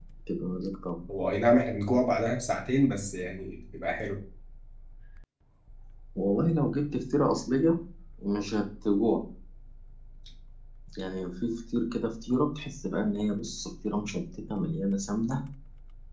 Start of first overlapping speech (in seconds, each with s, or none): none